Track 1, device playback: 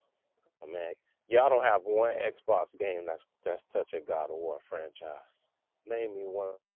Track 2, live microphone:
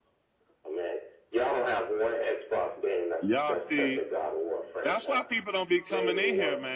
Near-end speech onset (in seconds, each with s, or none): 3.2 s